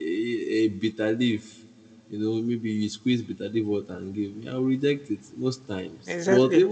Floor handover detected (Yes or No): No